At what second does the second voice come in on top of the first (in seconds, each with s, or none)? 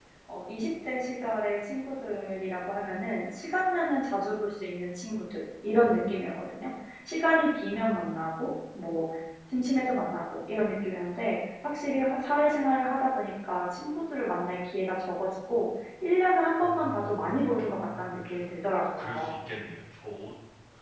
16.6 s